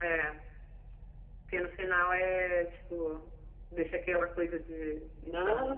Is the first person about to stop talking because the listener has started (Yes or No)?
Yes